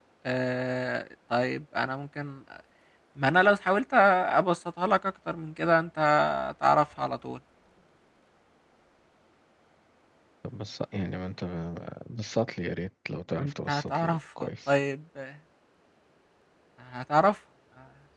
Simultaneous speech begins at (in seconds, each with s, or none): 13.4 s